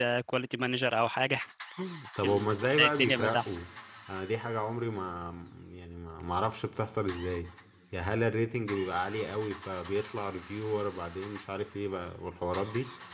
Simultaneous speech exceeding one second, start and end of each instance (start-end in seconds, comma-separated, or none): 2.2-3.6